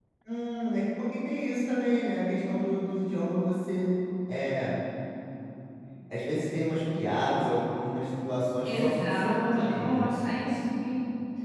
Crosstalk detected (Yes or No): Yes